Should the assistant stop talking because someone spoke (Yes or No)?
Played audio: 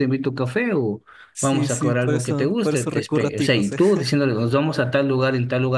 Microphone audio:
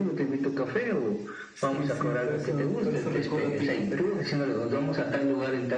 No